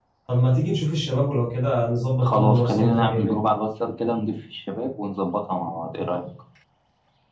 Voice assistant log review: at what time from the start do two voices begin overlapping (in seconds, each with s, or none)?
2.2 s